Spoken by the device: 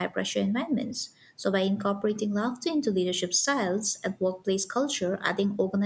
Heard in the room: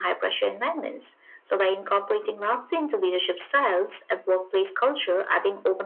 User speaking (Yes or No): No